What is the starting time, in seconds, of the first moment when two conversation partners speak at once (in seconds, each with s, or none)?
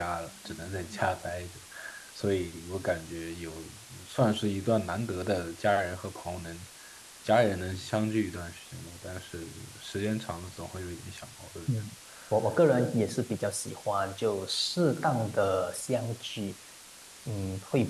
none